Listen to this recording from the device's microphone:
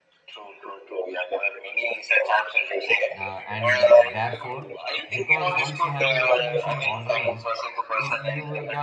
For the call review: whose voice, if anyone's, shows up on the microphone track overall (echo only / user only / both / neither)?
both